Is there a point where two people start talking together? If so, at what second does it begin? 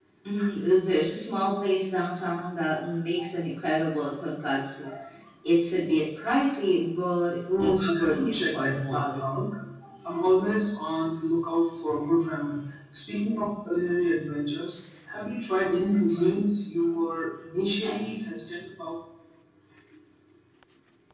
8 s

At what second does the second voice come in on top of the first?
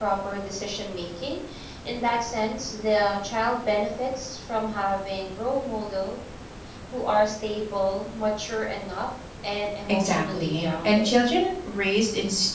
10 s

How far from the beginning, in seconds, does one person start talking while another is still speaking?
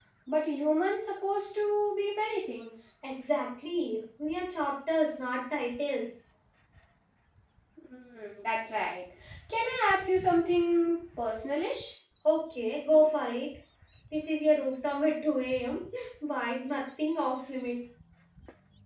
none

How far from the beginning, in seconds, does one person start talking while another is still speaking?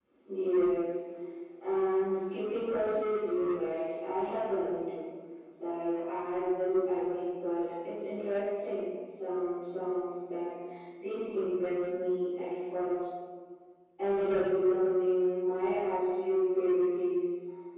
none

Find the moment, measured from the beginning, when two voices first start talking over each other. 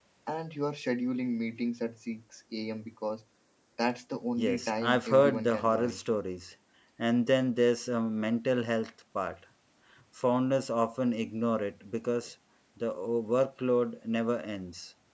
4 s

